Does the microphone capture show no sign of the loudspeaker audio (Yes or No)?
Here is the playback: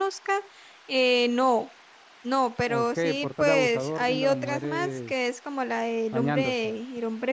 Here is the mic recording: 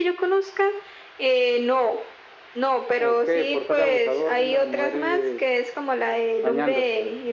No